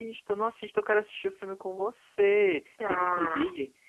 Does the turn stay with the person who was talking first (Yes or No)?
Yes